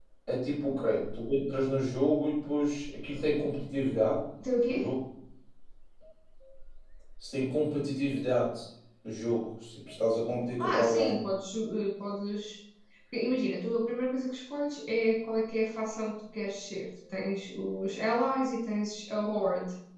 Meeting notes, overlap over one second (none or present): none